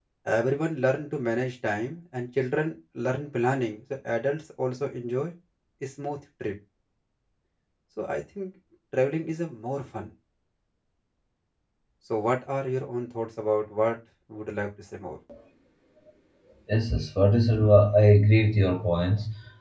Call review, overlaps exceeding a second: none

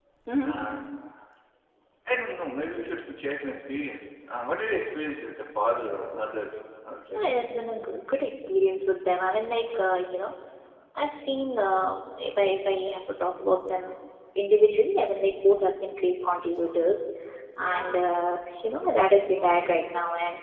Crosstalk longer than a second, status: none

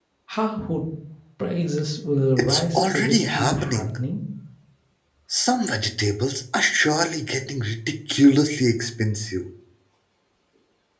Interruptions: present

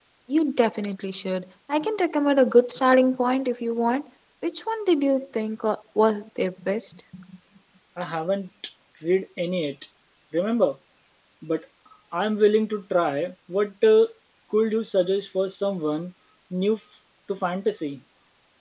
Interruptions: none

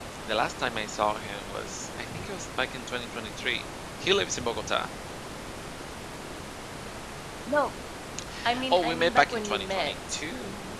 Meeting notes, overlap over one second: present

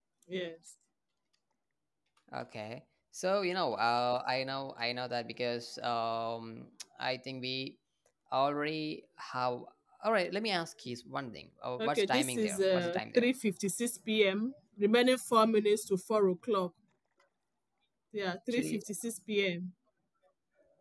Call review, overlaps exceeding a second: present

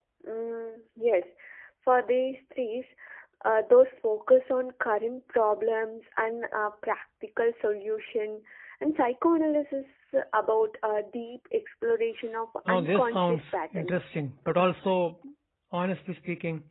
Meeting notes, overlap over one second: present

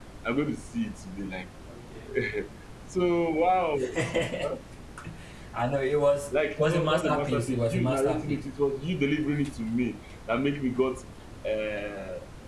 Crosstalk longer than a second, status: present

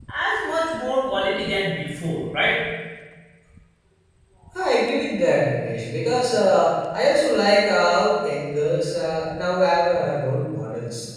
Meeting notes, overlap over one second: none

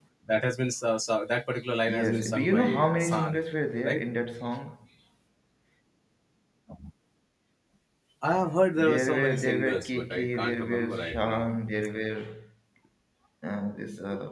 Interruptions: present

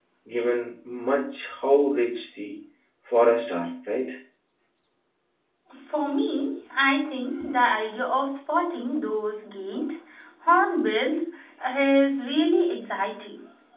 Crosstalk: none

